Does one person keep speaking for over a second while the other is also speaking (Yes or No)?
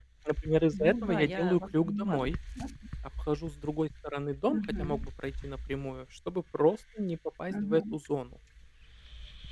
Yes